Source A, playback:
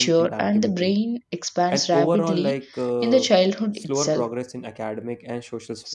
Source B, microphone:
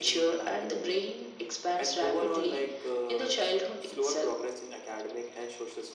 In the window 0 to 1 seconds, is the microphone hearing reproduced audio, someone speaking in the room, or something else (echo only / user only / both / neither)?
echo only